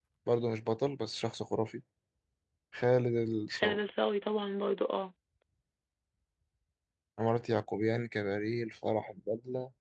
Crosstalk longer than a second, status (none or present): none